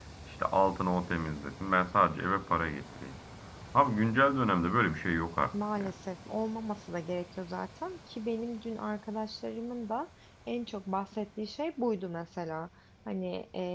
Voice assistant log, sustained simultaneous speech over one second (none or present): none